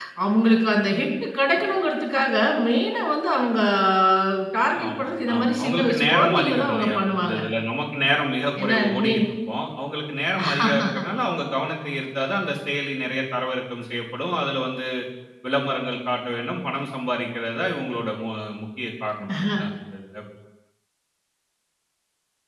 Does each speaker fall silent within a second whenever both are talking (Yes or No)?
No